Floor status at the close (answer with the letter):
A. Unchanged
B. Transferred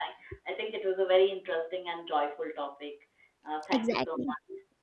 B